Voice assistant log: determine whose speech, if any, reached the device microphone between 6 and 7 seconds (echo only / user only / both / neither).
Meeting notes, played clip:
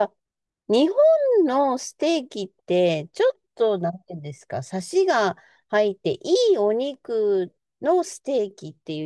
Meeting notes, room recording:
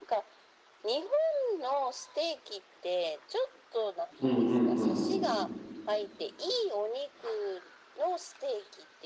echo only